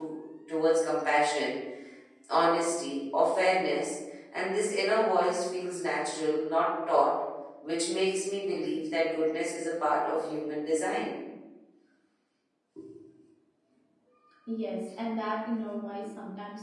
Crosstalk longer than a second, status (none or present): none